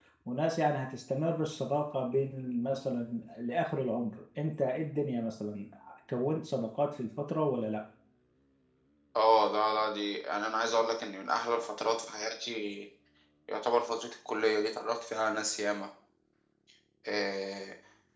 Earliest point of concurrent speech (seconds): none

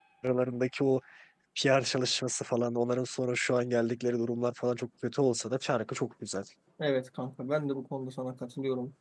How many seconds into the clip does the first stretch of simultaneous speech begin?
none

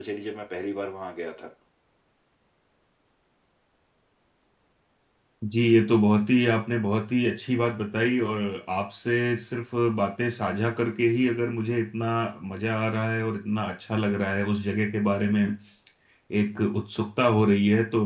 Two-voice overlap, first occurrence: none

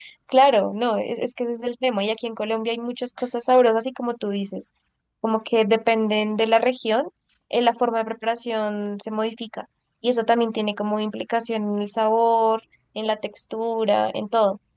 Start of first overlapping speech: none

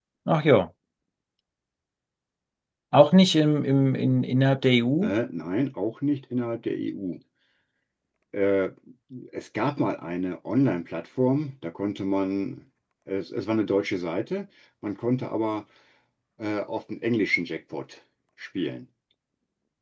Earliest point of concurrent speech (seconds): none

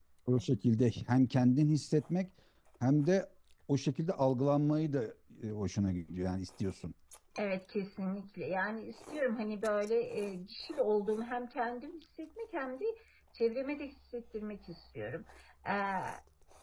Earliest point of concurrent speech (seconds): none

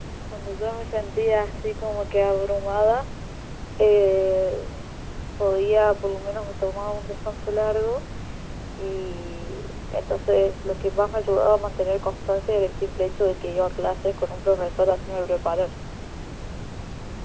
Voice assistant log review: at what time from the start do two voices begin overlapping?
none

